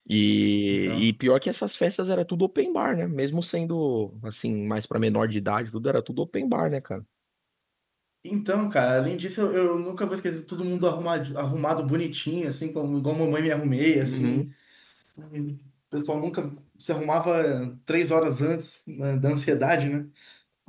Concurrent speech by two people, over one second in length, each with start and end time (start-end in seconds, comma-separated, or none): none